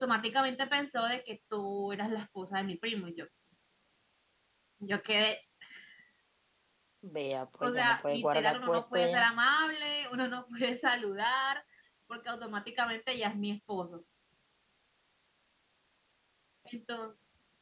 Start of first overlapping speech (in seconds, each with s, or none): 7.6 s